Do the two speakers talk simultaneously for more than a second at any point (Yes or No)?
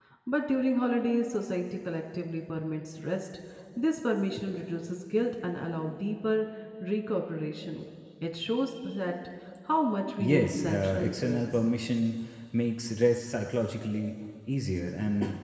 Yes